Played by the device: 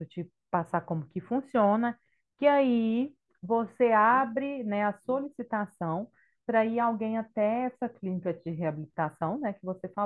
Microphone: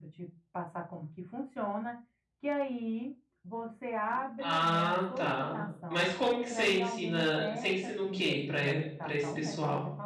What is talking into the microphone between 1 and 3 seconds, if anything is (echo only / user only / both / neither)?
echo only